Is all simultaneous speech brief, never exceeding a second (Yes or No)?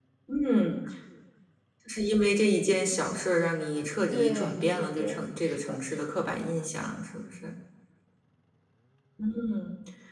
No